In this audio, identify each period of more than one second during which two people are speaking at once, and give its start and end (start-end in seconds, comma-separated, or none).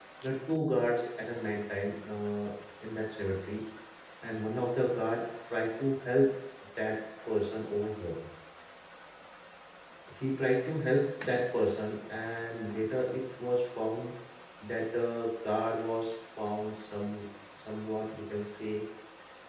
none